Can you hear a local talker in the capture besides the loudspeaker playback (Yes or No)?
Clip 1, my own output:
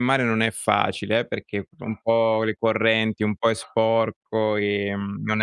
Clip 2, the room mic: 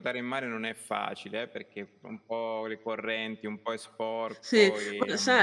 Yes